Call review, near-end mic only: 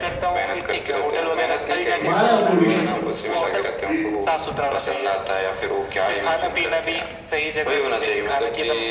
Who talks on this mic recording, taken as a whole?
both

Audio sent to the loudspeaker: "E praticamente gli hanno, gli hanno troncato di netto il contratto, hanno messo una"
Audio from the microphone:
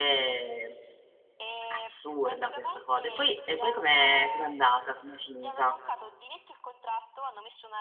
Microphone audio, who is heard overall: both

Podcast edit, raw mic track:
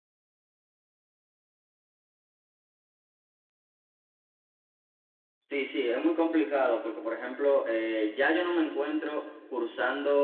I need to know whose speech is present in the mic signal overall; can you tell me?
user only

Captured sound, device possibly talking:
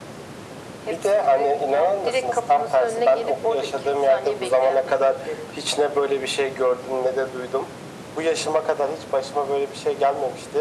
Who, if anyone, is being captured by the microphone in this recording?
echo only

